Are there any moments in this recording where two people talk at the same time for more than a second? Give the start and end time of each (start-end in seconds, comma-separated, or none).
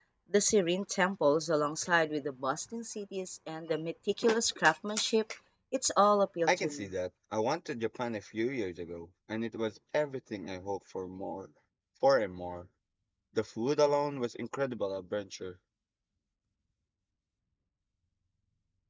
none